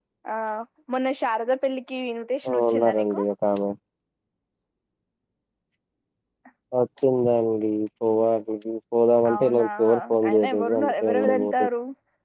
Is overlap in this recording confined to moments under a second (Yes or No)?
No